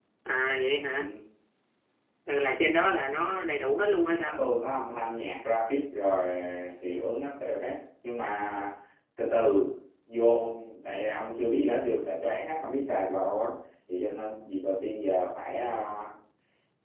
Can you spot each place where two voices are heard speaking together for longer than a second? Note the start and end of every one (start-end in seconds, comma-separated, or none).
none